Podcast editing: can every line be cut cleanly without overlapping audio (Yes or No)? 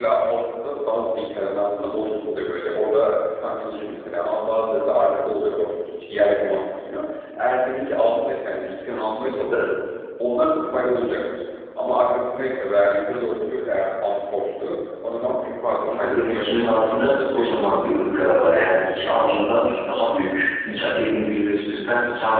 No